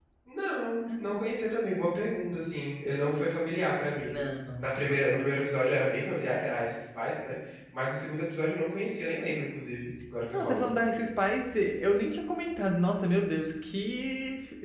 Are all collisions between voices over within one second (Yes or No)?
Yes